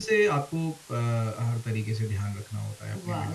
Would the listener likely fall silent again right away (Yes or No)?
No